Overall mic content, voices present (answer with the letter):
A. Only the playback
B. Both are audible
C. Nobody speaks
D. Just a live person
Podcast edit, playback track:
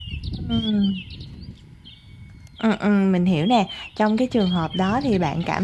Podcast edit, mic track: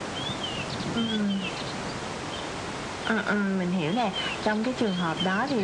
A